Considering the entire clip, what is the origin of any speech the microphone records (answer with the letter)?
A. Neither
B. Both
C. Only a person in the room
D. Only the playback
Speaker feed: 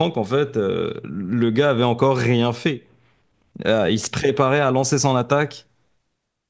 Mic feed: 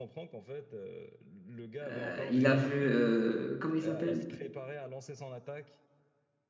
B